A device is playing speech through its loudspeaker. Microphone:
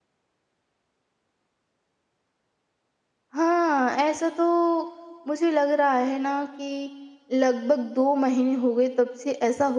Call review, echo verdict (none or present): none